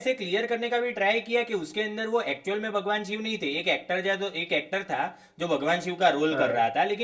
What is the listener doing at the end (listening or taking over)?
listening